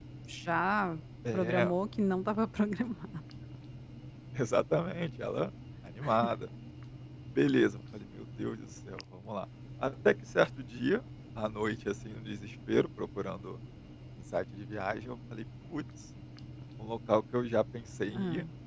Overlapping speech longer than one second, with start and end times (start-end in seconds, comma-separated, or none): none